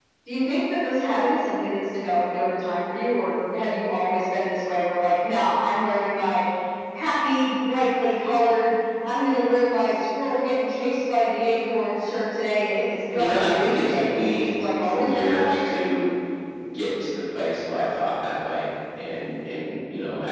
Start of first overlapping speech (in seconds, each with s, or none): 13.1 s